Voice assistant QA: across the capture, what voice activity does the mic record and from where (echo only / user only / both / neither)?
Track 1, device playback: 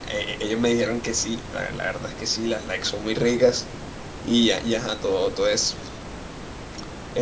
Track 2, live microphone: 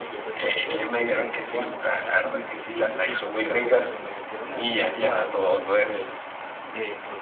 both